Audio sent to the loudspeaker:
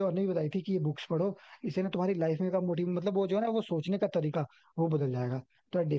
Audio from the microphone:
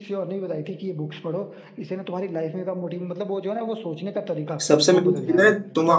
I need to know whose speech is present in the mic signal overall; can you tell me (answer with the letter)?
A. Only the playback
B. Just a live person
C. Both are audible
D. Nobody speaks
C